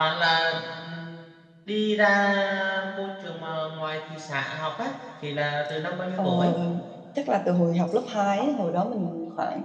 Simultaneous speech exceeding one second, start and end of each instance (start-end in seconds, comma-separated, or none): none